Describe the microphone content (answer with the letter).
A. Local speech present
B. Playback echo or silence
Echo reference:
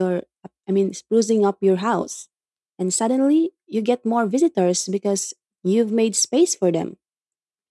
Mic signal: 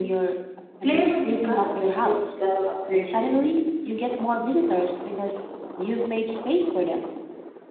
A